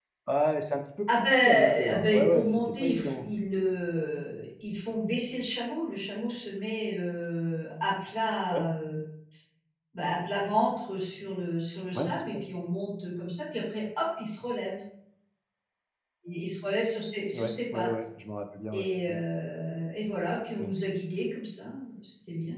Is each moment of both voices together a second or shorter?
No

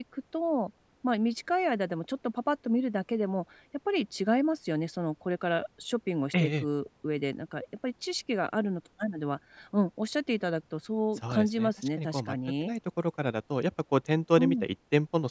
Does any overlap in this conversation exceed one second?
Yes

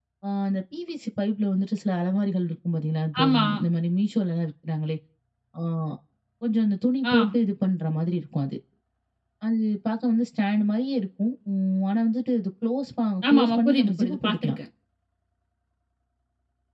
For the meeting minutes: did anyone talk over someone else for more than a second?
Yes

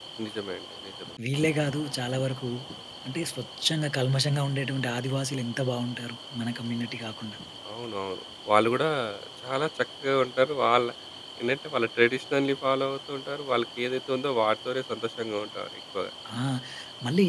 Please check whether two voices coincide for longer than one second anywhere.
No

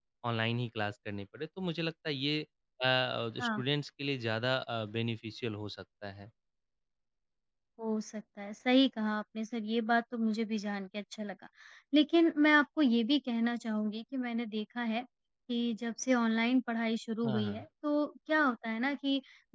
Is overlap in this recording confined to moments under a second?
Yes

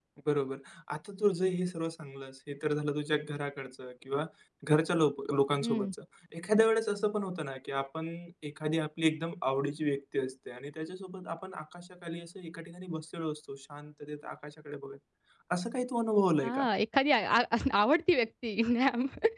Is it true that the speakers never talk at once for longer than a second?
Yes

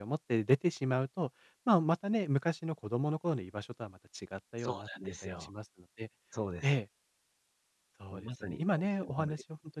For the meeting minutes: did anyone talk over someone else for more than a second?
Yes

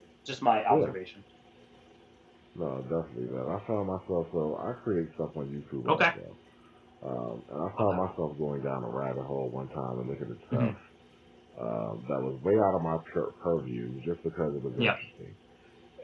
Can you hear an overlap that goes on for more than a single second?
No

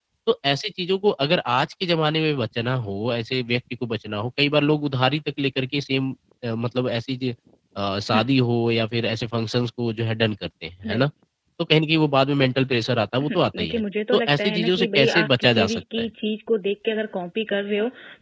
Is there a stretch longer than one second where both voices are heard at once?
Yes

